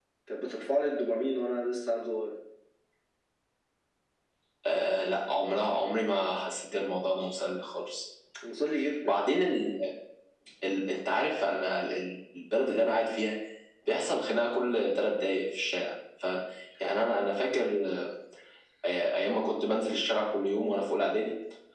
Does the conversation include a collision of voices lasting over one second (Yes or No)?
No